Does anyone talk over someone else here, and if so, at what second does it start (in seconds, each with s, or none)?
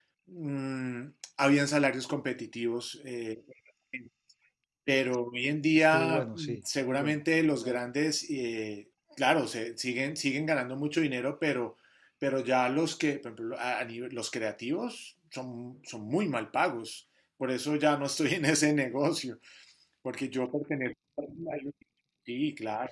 5.7 s